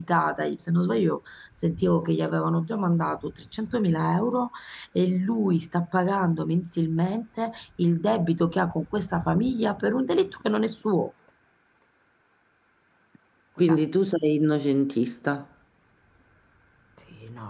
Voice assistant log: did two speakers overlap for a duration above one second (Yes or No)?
No